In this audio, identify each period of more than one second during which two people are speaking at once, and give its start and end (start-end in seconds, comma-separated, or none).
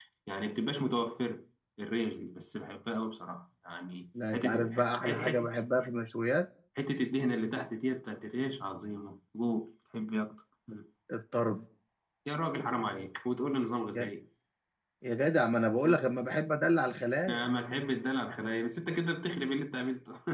4.3-5.5